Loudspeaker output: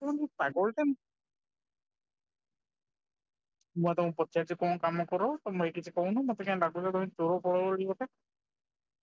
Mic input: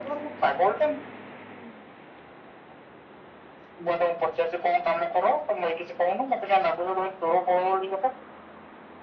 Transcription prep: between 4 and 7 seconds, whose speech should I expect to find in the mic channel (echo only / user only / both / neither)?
echo only